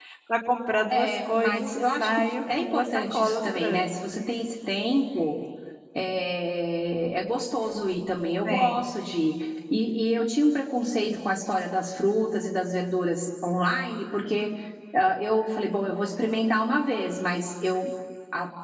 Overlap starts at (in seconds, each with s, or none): 0.9 s